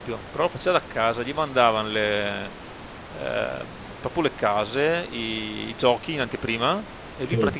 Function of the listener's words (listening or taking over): listening